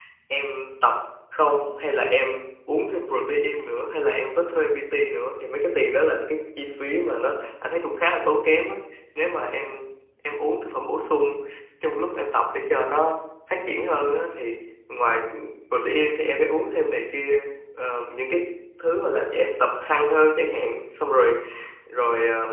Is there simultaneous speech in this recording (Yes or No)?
No